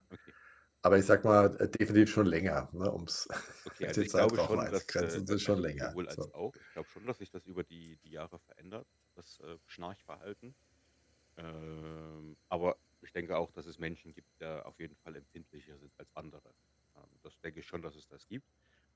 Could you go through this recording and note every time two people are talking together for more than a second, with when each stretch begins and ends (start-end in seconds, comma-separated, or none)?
4.0-6.2